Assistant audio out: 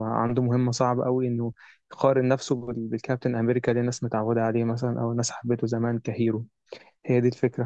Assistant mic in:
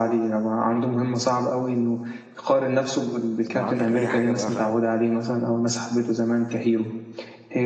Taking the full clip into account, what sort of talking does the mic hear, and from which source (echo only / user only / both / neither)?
both